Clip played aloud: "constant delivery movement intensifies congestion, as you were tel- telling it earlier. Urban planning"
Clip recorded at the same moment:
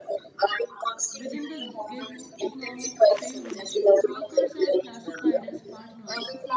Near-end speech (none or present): present